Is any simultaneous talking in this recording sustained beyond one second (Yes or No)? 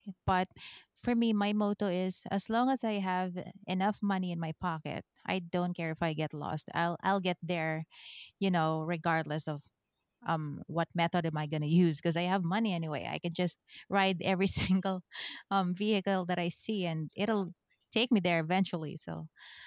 No